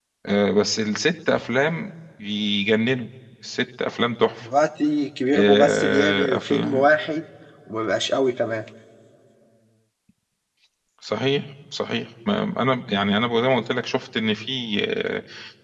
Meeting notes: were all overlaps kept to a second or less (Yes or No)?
No